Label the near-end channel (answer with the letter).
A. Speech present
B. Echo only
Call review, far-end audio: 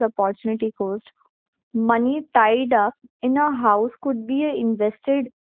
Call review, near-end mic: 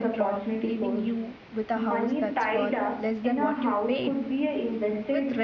A